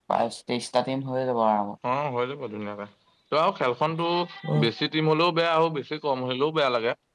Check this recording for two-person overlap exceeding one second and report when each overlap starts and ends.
none

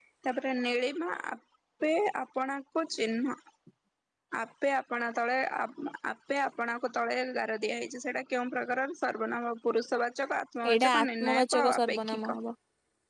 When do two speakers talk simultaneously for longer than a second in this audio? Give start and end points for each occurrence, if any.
10.7-12.4

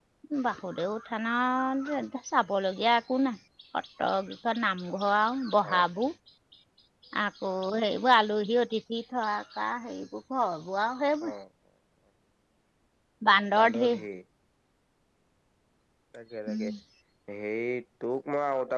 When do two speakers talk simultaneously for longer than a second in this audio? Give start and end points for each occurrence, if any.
none

